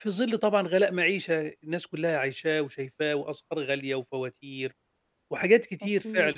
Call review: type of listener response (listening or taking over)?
listening